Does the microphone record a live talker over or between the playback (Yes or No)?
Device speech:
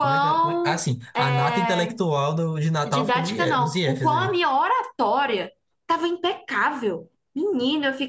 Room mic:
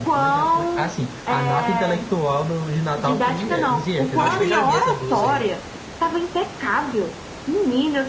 Yes